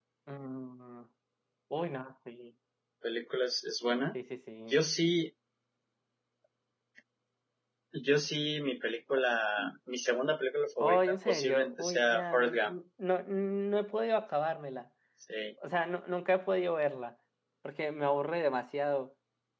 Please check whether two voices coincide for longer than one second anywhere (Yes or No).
Yes